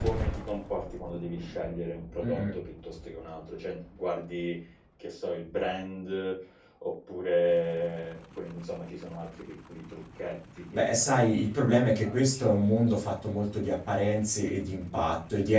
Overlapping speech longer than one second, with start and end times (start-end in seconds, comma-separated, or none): 10.7-12.4